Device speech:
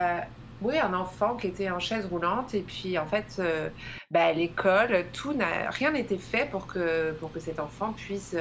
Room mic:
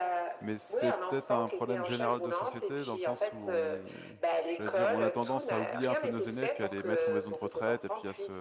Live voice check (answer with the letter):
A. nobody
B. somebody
B